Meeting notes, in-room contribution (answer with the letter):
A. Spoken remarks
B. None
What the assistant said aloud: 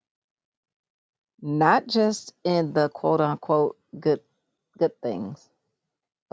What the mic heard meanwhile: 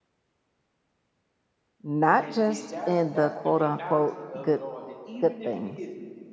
A